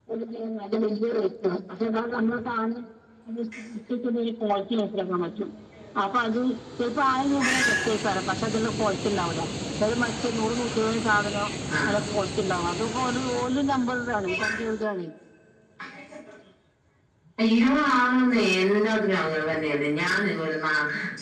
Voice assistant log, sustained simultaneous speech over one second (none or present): none